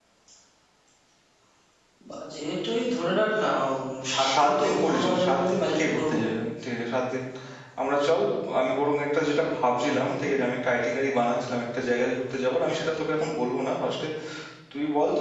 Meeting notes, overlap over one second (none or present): present